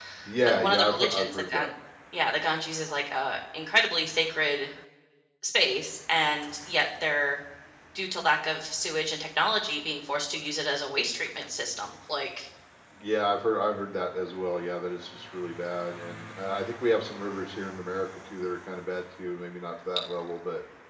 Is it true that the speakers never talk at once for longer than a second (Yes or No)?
No